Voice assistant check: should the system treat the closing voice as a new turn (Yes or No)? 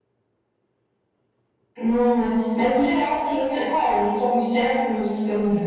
No